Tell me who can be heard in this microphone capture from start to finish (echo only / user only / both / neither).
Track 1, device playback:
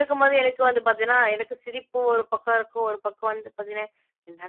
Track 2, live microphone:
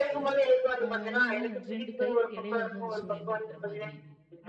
both